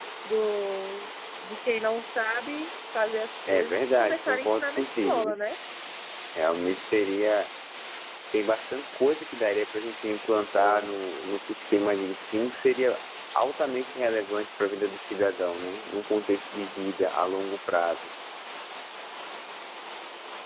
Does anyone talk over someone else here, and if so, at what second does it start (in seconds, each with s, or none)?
3.5 s